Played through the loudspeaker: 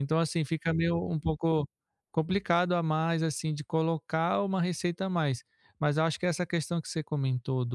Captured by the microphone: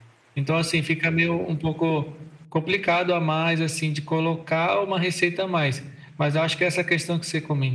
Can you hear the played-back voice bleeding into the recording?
Yes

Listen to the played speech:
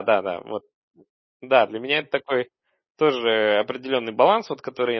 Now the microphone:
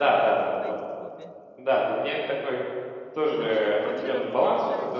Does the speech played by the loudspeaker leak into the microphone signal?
Yes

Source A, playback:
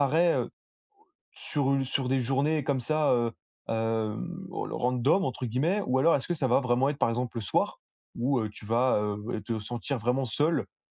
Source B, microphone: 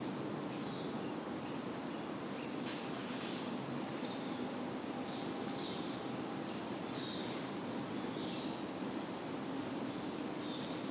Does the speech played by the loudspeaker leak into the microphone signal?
No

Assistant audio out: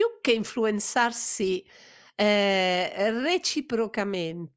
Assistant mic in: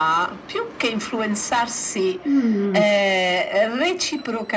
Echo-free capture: No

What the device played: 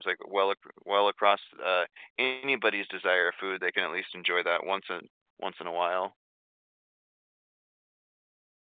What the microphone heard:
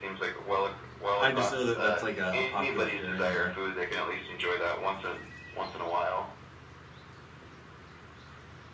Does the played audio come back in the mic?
Yes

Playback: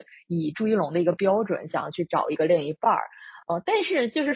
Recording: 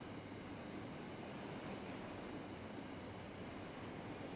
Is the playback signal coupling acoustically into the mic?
No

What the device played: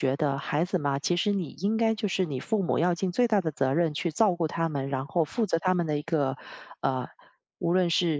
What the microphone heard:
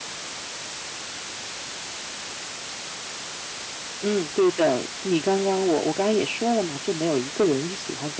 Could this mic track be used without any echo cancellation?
Yes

